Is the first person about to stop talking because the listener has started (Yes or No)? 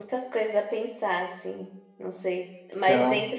No